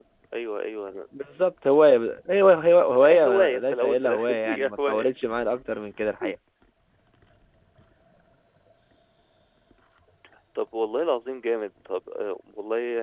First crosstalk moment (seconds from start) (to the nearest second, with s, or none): 3 s